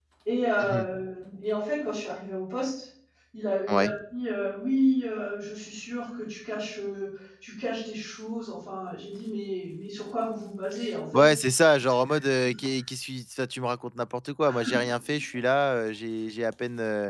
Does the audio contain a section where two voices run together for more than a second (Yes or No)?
No